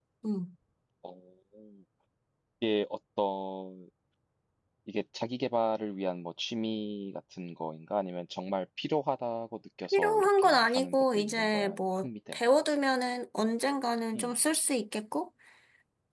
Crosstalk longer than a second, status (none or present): present